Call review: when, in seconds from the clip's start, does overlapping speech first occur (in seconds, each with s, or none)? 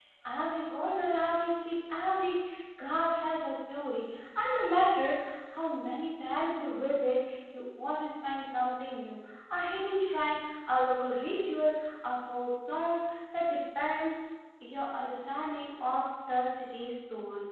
none